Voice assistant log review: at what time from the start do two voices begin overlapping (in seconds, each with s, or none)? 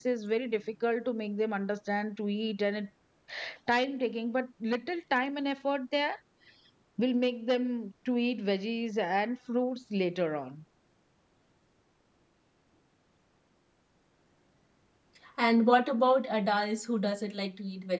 none